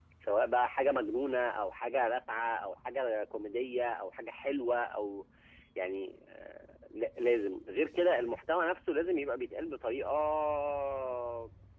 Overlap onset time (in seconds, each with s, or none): none